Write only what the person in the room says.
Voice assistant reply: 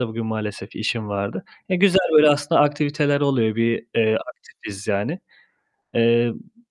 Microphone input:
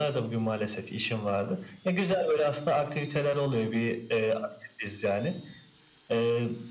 none

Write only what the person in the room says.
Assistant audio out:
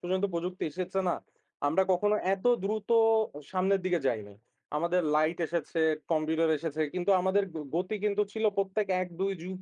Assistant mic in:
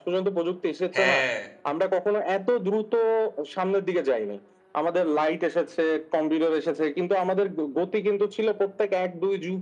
হ্যাঁ।

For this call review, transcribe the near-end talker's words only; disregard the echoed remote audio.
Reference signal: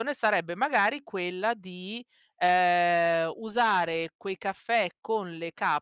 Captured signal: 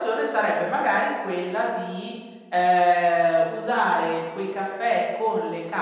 none

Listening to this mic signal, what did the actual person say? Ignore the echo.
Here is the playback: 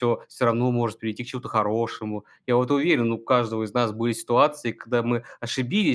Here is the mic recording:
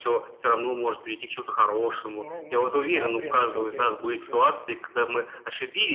Ну, ну да, преодолел я его тоже.

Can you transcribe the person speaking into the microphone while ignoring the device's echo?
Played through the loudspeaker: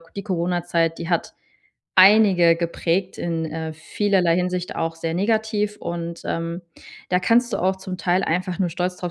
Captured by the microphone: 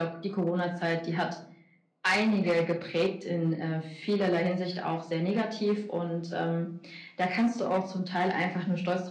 none

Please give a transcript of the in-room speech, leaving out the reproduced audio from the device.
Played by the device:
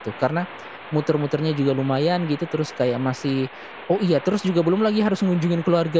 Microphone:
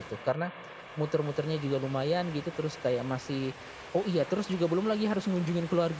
none

